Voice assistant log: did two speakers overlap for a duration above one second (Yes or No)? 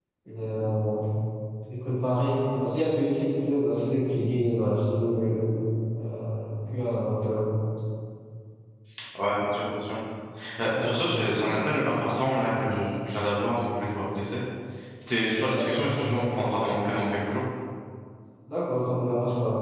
No